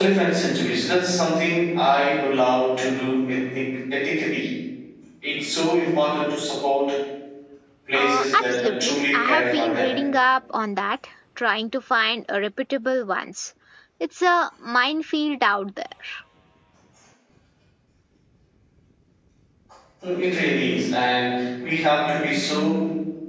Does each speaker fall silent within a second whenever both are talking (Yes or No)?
No